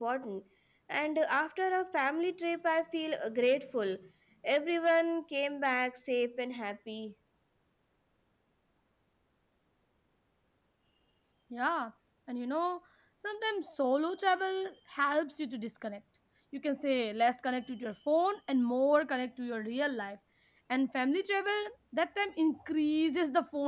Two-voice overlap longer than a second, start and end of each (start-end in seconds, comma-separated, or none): none